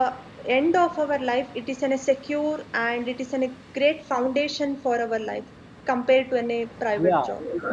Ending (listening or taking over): taking over